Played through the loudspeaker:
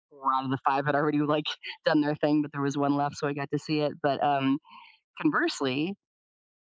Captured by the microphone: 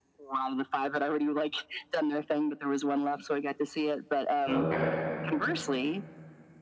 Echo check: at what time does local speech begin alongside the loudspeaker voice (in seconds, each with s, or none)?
4.5 s